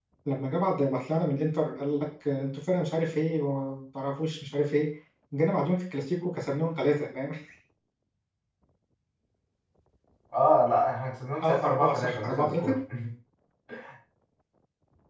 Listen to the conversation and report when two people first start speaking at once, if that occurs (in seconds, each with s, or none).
11.4 s